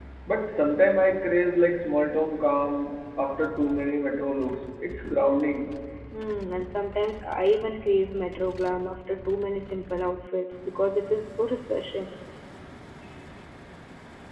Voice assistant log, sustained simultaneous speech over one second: none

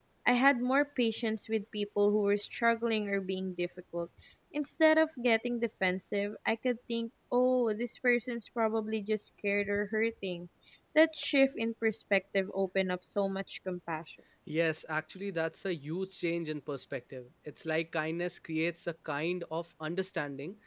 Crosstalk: none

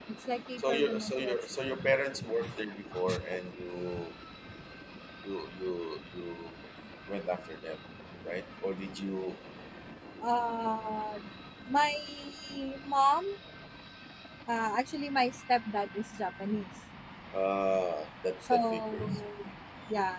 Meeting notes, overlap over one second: present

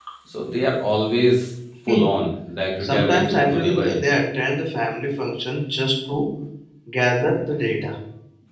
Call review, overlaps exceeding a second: present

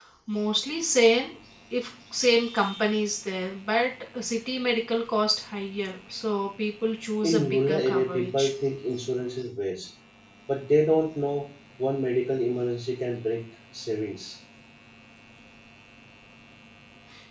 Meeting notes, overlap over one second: present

